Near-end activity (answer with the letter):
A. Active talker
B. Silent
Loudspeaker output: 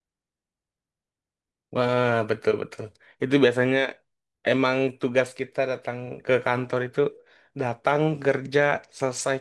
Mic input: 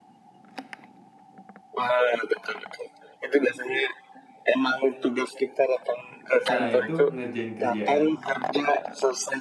A